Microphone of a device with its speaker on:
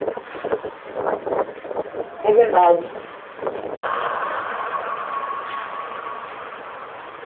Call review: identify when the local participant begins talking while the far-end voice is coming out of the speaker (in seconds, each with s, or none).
2.2 s